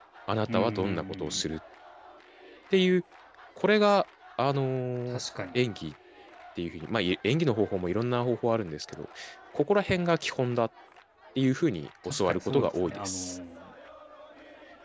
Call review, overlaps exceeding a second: present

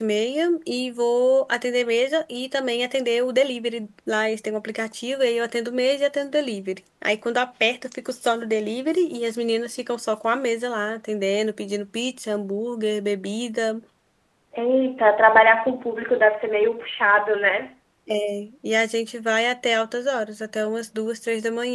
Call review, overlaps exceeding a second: none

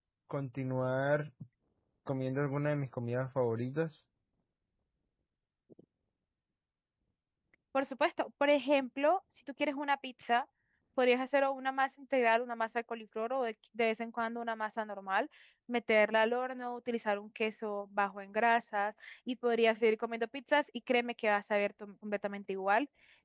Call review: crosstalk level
none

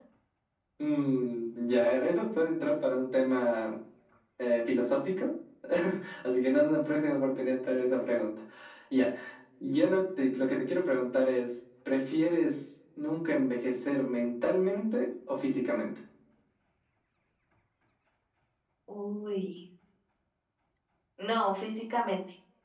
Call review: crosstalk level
none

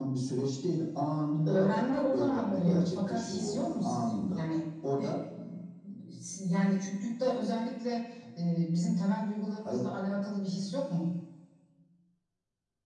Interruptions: present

